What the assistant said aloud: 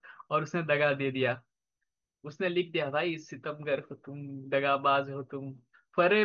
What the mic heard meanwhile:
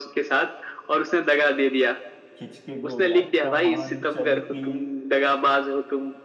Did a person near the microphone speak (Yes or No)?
Yes